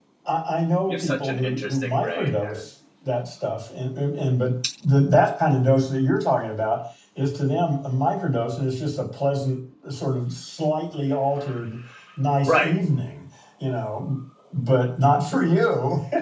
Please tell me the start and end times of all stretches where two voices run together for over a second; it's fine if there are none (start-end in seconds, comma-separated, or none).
0.9-2.7